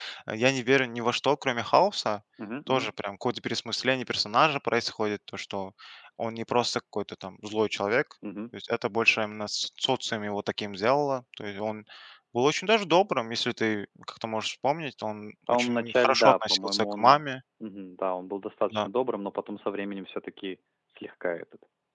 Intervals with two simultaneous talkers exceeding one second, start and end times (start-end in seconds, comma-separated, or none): 15.5-17.2